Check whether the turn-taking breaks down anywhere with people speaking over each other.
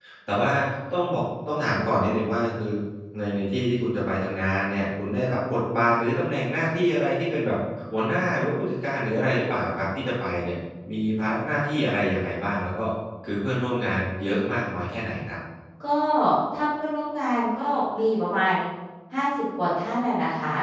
No

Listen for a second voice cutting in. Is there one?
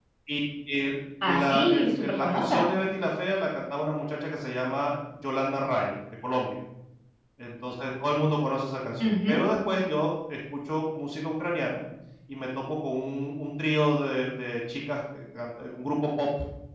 Yes, from 1.3 s

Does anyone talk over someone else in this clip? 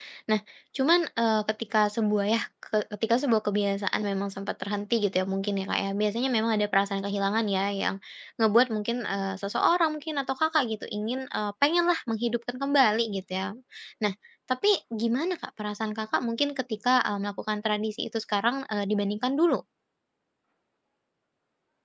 No

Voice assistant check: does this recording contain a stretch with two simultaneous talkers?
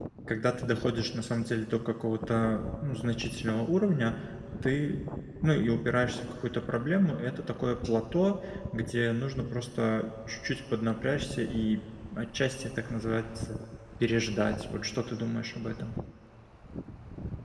No

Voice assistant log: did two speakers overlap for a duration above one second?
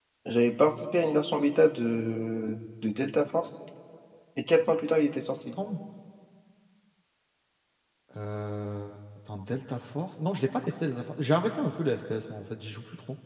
No

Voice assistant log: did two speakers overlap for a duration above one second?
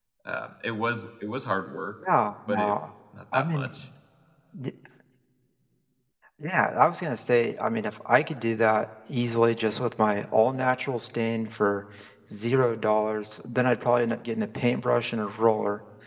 No

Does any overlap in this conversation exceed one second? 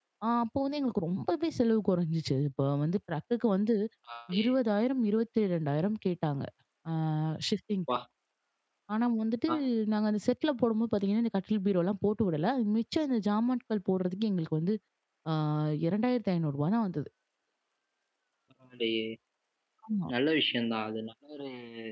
No

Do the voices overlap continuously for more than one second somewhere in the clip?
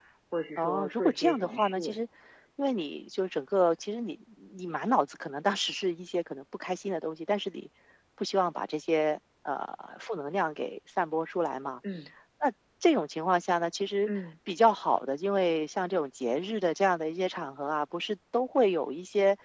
Yes, from 0.6 s

